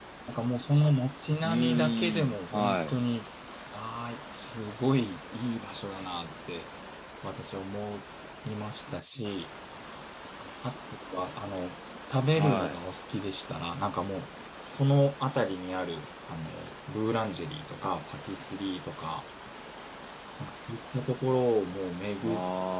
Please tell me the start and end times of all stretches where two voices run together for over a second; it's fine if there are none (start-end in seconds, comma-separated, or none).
1.4-3.0